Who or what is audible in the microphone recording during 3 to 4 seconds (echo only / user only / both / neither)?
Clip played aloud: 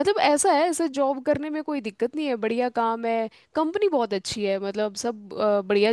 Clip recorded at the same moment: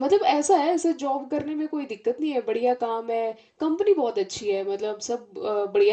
echo only